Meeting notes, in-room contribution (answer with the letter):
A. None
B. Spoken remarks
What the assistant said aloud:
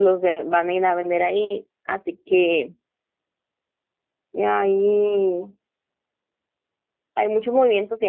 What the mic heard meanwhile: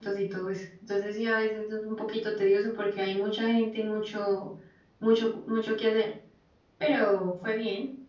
B